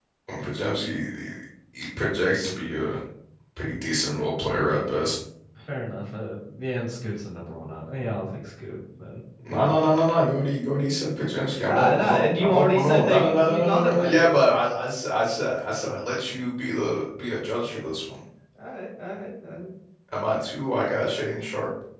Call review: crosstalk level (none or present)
present